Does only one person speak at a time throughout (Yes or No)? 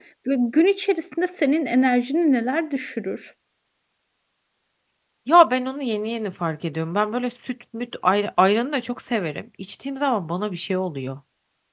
Yes